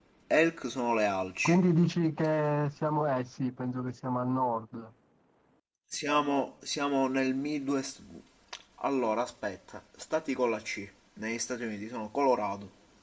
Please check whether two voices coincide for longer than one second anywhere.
No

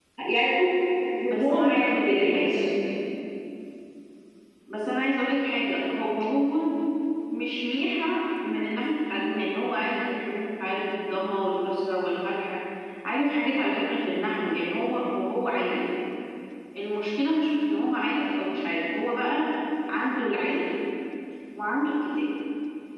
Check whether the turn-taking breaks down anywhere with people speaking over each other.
Yes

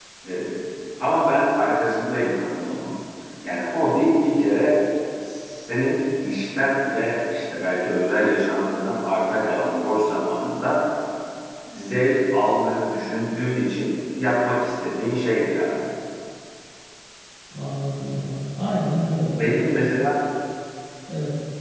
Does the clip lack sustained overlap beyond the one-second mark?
Yes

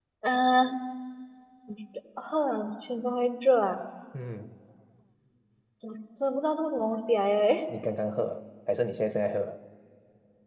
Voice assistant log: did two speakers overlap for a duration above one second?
No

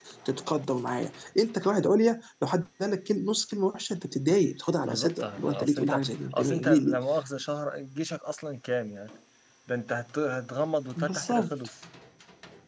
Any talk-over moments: Yes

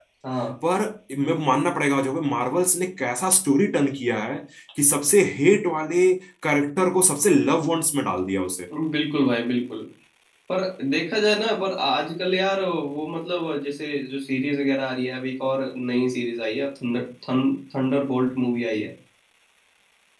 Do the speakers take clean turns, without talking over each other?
Yes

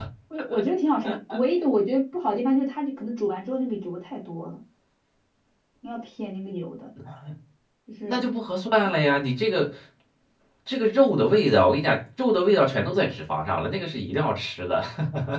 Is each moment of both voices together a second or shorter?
Yes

